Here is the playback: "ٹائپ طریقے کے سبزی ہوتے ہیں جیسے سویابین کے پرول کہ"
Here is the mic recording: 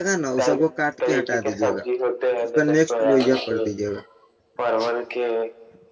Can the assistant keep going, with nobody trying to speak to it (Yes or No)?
No